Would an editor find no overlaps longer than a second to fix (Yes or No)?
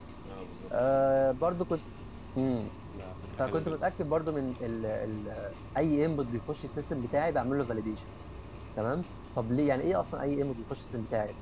Yes